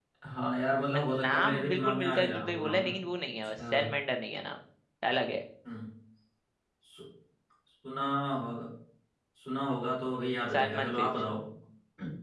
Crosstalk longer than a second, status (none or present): present